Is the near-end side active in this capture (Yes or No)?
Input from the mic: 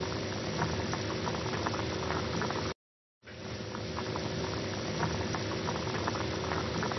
No